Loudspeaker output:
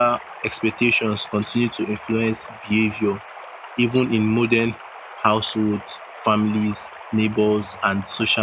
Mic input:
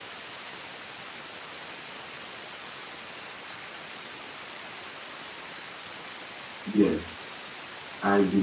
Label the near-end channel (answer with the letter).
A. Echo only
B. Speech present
B